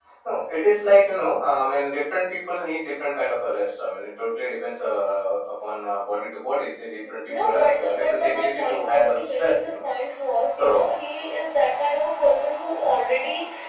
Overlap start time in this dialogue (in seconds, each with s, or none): 7.0 s